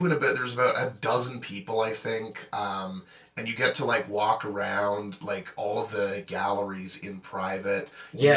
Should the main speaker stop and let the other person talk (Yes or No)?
Yes